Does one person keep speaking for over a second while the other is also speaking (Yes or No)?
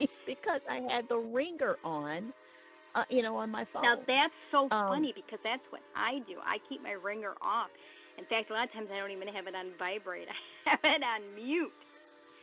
No